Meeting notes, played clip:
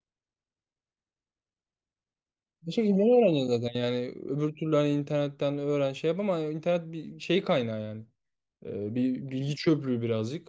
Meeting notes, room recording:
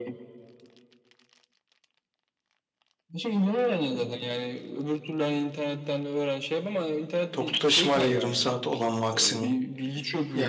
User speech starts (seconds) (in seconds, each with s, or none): 7.3 s